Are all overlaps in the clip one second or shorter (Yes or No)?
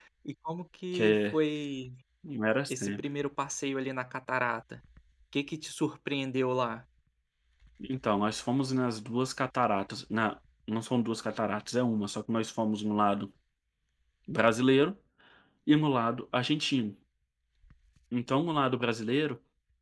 Yes